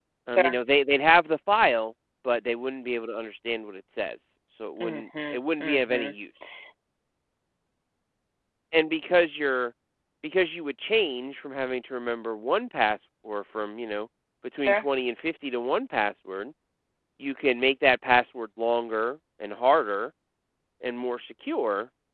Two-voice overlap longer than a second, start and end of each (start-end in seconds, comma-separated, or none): 4.8-6.1